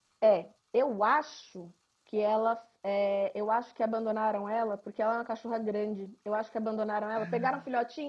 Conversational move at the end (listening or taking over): listening